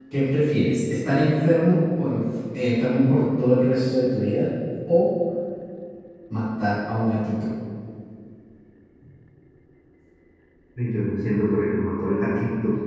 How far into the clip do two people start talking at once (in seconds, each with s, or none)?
none